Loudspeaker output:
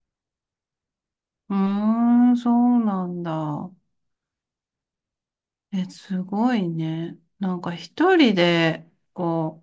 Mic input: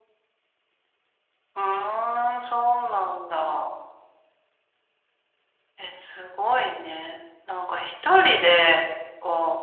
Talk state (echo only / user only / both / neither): echo only